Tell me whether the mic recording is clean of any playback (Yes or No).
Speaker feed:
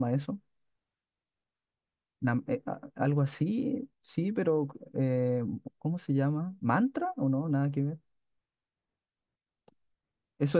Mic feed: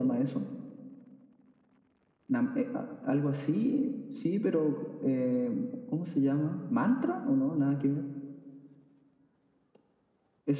No